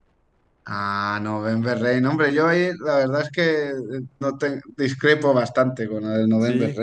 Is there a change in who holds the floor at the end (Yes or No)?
No